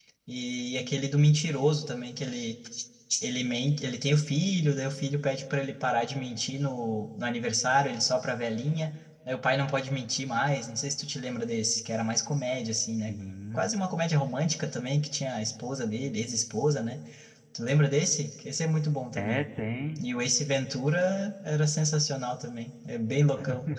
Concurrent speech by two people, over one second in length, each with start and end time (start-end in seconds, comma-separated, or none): none